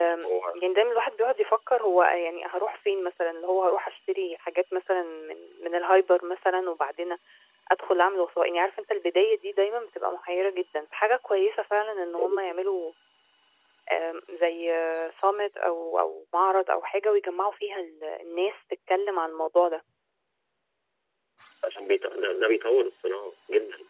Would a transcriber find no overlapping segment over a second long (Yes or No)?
Yes